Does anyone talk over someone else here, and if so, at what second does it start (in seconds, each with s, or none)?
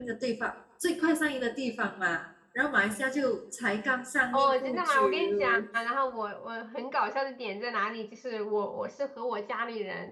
4.3 s